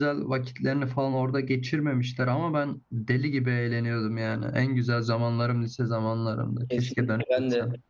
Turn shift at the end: Yes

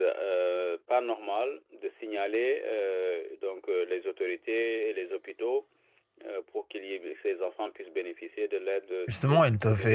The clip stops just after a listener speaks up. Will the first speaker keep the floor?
No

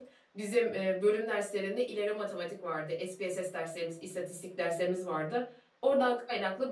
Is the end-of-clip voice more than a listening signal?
No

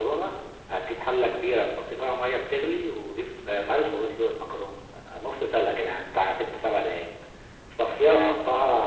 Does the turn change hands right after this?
No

